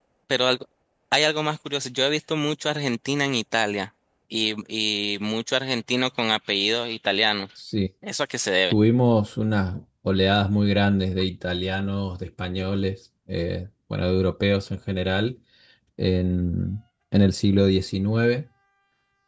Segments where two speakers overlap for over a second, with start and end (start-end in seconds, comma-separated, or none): none